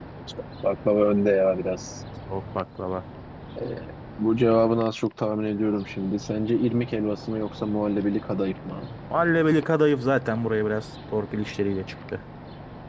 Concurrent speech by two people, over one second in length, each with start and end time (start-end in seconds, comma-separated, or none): none